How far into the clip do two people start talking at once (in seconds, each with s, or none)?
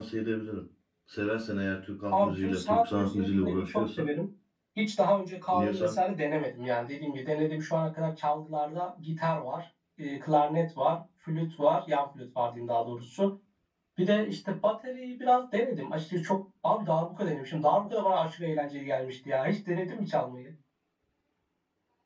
2.1 s